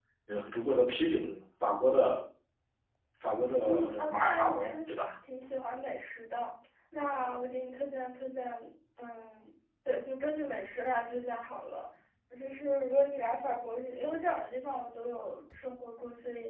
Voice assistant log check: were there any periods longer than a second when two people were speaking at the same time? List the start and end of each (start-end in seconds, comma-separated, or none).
3.6-4.9